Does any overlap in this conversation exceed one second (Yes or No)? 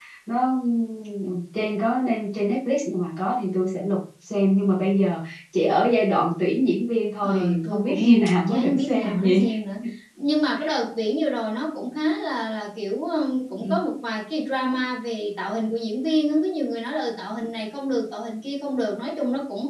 Yes